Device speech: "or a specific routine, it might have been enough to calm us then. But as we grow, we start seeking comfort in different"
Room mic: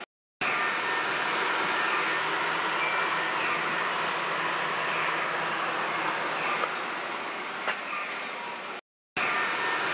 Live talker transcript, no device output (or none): none